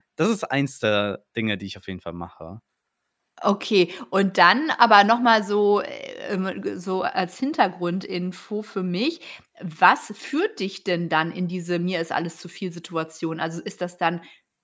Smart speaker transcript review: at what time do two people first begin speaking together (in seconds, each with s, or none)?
none